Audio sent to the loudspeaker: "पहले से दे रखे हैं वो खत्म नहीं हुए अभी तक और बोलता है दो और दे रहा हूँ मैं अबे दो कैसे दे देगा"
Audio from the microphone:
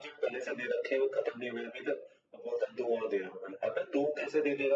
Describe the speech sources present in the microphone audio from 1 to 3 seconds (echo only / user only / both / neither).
echo only